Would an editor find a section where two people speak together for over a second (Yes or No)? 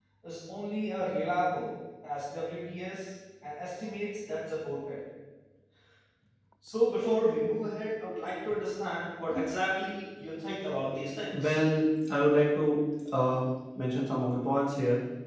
No